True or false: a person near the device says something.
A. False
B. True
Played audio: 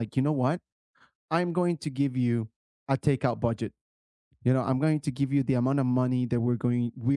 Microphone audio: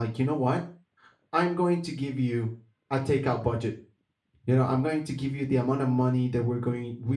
A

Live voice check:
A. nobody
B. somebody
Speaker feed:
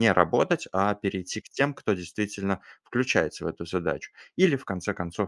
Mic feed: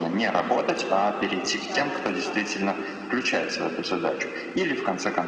B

